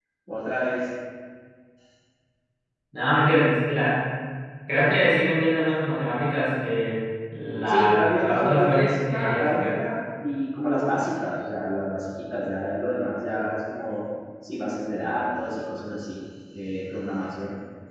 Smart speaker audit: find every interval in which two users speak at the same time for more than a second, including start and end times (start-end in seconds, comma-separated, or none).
7.7-9.7